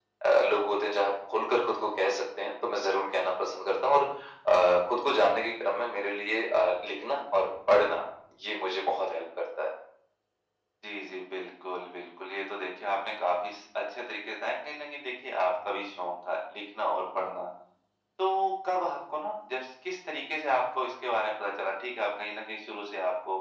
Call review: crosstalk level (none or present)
none